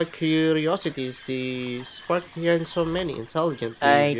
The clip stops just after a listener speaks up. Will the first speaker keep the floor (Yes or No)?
No